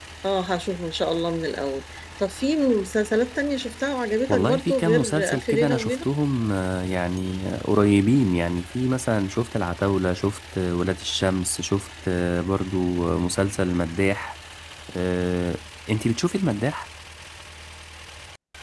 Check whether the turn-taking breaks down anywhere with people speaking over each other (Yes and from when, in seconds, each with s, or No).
Yes, from 4.3 s